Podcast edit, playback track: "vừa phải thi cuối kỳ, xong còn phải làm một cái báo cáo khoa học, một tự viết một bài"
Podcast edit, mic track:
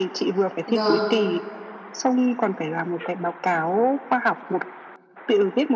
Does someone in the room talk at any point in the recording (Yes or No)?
Yes